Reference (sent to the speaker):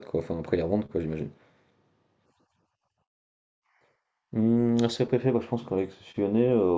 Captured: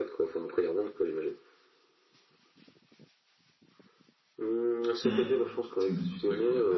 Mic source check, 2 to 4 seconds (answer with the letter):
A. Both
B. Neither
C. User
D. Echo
B